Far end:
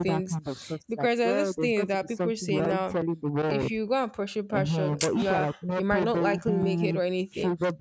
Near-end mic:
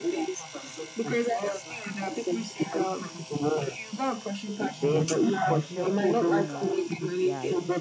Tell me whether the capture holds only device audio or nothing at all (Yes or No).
No